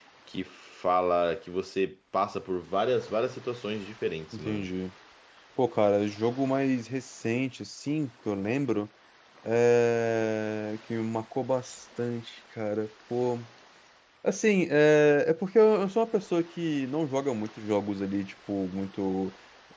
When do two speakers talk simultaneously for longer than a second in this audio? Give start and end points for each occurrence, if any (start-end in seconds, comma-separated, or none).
none